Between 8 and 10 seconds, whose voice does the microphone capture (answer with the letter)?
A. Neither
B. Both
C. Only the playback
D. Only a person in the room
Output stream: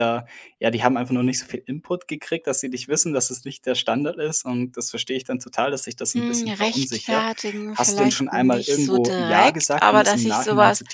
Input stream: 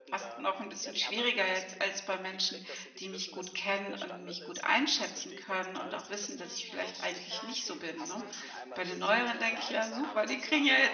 B